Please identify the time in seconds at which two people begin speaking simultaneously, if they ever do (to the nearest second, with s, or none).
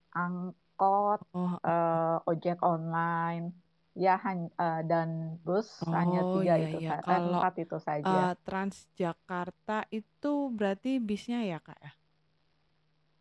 6 s